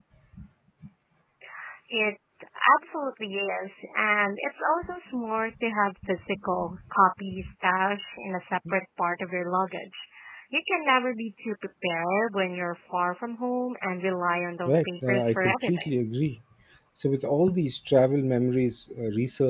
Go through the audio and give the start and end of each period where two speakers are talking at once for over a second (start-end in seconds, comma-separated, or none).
14.7-15.9